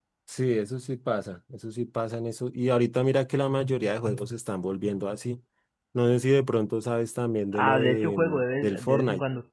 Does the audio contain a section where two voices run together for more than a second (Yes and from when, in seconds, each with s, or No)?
Yes, from 7.5 s